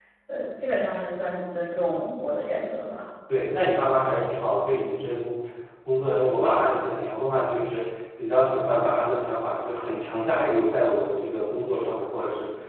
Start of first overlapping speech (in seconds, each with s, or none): none